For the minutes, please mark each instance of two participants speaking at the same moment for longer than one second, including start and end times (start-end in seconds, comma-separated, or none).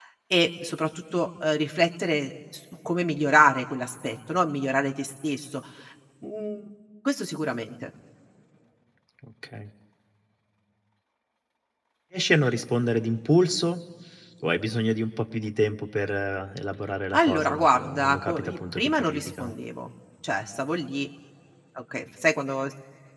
17.1-19.5